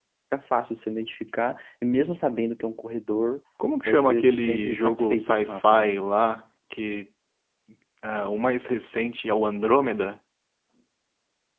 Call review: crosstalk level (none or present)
present